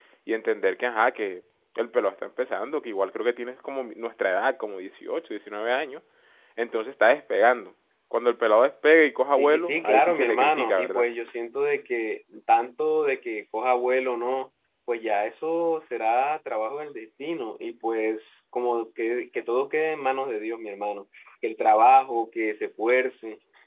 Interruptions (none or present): present